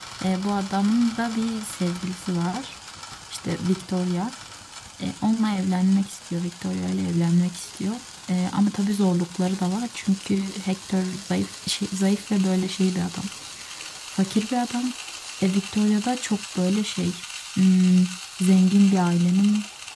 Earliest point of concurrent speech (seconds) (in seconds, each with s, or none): none